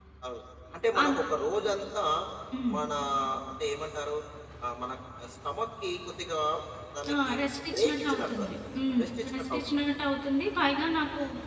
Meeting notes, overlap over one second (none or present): present